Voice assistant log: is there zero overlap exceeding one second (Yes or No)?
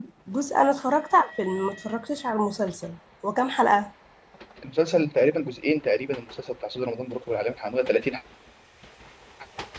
Yes